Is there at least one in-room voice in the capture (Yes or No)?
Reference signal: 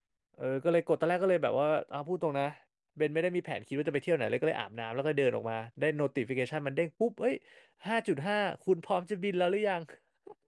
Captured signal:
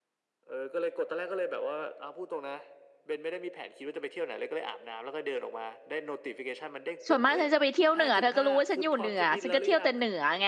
Yes